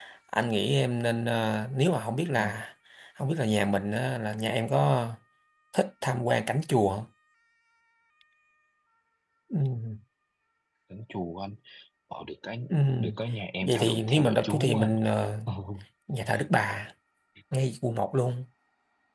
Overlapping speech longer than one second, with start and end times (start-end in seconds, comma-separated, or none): 13.6-15.0